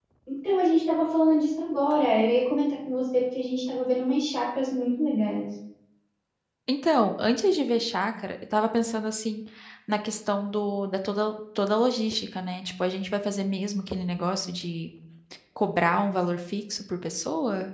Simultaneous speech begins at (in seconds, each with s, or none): none